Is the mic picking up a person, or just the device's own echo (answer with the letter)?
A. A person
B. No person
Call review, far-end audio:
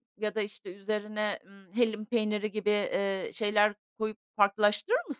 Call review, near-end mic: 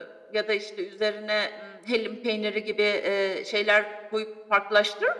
B